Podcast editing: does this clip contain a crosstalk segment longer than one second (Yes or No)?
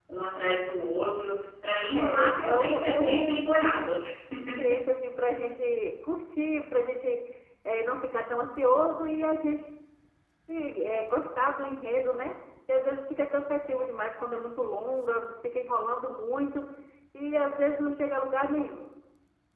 Yes